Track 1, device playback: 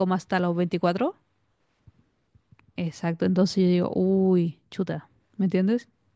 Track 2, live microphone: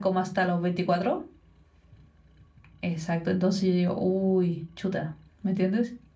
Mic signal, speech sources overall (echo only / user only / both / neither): echo only